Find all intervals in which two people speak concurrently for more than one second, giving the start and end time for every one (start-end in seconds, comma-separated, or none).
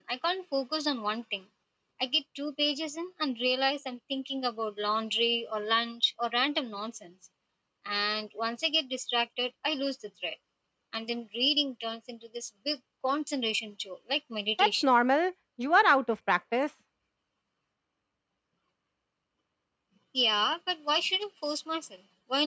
none